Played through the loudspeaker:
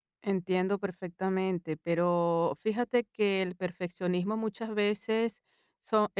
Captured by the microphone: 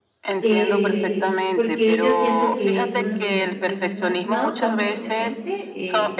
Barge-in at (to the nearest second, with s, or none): 0 s